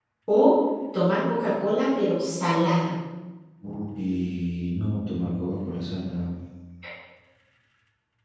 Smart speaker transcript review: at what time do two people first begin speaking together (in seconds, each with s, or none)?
none